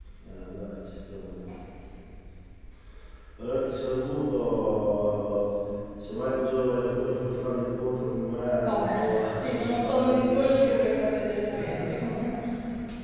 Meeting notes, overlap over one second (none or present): present